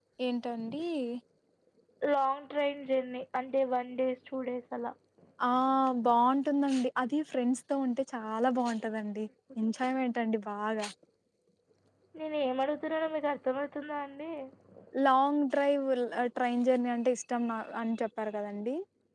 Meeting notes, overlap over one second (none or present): none